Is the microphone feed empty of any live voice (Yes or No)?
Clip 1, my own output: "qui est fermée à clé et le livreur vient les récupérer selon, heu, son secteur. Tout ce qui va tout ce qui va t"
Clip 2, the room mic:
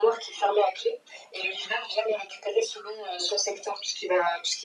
Yes